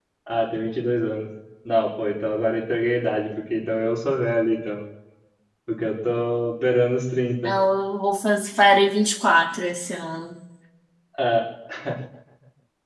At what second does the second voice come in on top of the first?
none

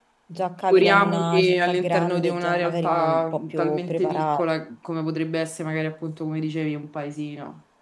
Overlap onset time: 0.7 s

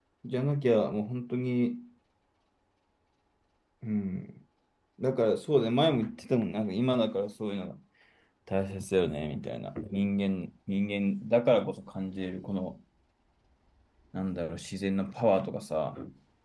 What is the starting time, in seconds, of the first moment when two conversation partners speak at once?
none

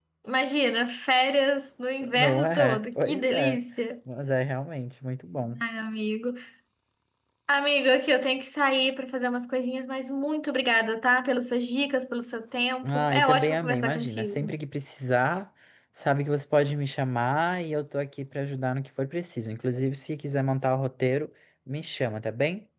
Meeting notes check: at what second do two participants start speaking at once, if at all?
2.1 s

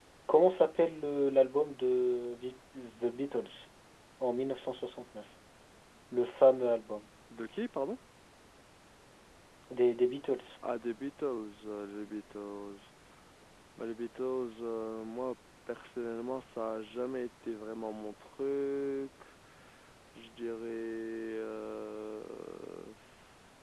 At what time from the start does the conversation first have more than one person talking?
none

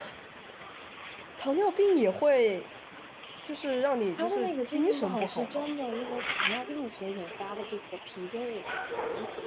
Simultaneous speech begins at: 4.2 s

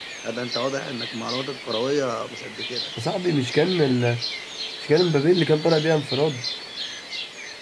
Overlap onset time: none

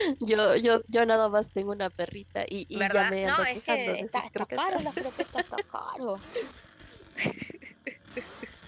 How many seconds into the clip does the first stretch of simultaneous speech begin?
2.7 s

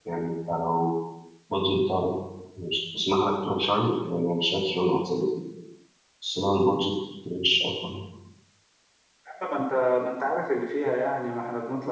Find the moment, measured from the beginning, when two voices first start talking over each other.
none

